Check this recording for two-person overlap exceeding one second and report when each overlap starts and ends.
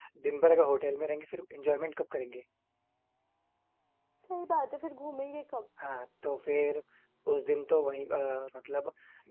none

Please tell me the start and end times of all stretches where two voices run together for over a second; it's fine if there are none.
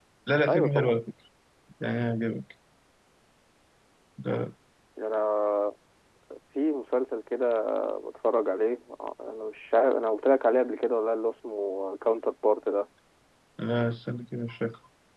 none

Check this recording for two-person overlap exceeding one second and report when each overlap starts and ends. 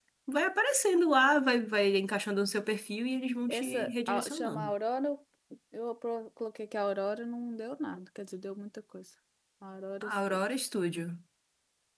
3.5-4.7

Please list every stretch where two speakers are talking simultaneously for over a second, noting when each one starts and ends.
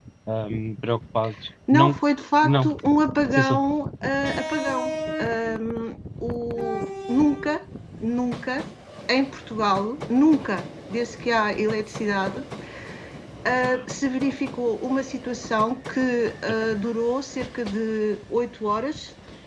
none

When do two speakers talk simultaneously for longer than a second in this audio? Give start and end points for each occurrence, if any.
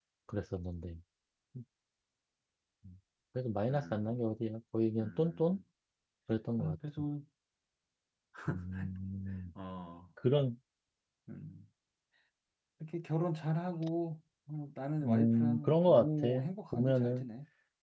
15.0-16.3

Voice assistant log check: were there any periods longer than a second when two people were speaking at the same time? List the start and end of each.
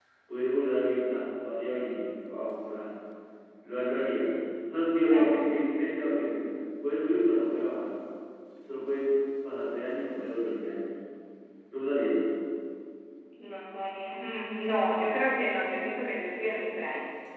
none

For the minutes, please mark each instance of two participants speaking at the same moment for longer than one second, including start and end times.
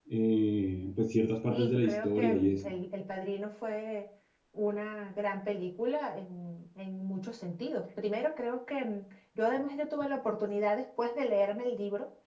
1.5-2.7

